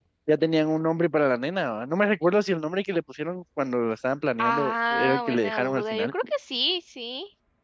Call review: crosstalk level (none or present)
present